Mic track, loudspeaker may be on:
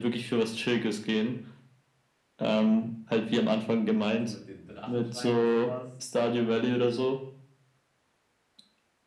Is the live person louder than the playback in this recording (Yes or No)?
No